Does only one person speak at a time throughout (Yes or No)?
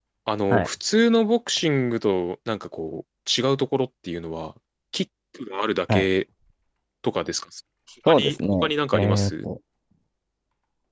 No